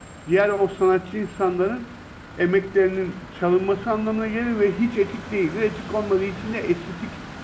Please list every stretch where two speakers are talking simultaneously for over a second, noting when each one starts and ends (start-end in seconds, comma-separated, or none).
none